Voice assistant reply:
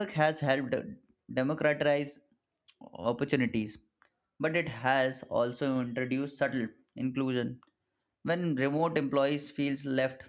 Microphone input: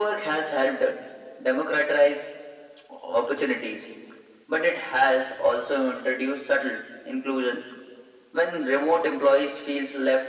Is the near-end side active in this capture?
No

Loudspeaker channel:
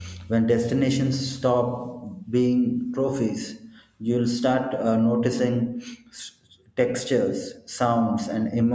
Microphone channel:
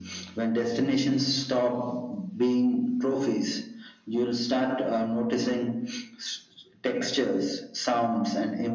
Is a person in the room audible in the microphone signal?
No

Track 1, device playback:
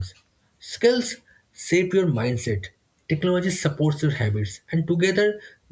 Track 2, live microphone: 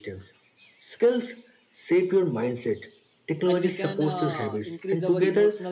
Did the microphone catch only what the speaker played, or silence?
No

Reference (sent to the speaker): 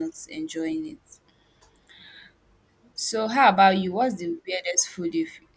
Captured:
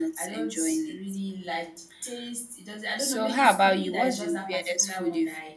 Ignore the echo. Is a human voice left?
Yes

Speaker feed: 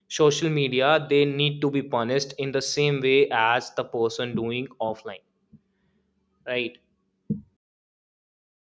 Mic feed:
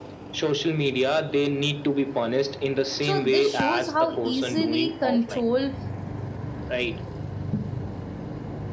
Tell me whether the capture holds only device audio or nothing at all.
No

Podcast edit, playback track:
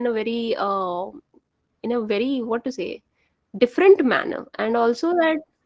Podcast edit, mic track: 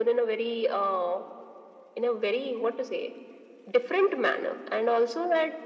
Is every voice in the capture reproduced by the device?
Yes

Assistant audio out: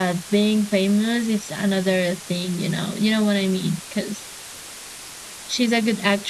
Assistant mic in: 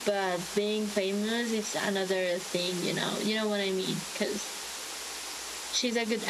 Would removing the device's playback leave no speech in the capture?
Yes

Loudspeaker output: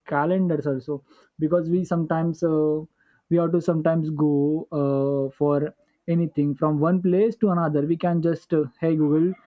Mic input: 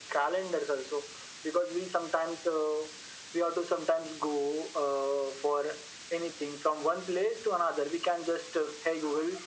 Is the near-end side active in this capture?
No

